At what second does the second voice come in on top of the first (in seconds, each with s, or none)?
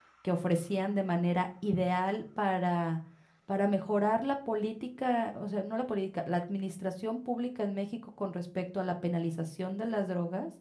none